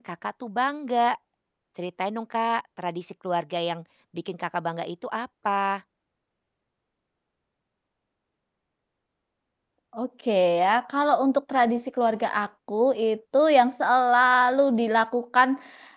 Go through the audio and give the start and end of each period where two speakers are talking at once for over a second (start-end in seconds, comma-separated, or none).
none